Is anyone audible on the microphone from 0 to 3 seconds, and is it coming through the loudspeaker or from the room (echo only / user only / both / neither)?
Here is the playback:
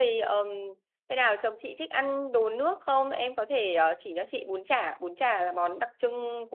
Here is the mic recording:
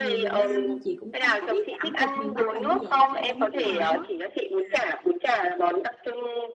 both